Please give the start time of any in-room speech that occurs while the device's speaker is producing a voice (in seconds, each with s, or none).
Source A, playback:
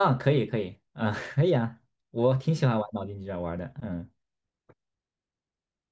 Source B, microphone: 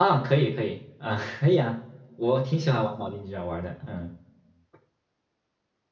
none